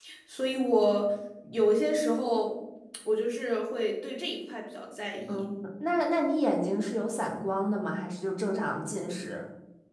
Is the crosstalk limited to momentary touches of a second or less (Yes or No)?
Yes